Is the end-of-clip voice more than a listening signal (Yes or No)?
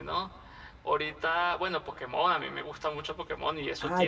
Yes